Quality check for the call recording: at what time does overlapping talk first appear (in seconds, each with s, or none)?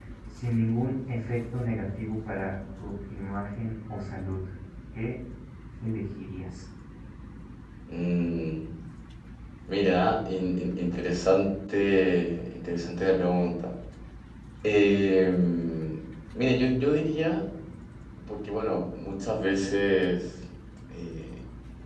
none